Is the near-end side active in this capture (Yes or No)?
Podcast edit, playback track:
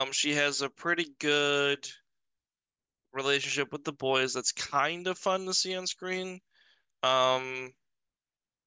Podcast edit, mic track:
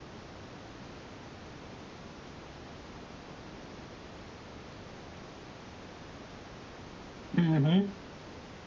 Yes